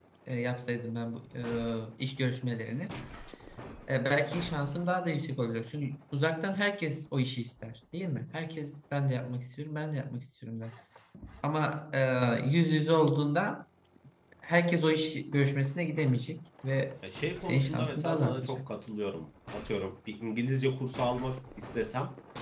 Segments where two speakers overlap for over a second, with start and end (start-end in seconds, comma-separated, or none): 17.4-18.6